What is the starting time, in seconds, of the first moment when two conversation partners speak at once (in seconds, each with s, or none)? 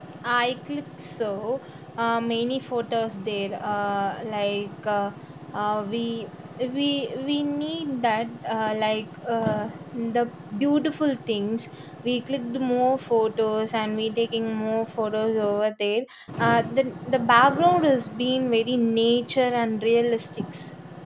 none